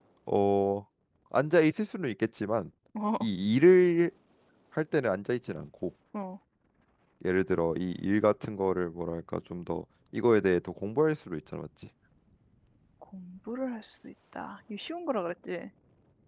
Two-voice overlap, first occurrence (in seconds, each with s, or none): none